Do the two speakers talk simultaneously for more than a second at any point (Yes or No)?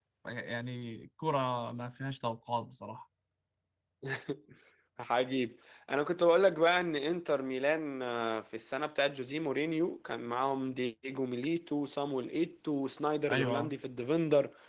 No